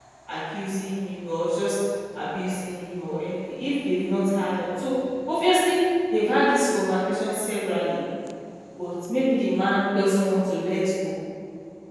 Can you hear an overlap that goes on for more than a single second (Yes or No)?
No